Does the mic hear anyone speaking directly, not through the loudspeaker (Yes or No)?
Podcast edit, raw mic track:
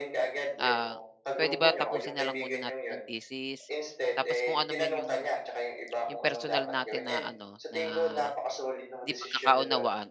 Yes